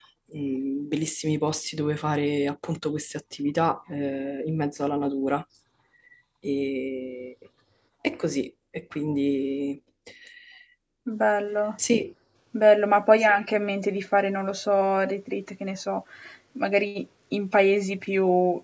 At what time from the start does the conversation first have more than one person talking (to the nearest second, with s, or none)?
none